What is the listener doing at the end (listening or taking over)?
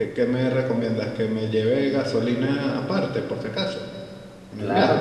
taking over